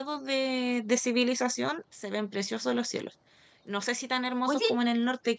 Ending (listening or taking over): listening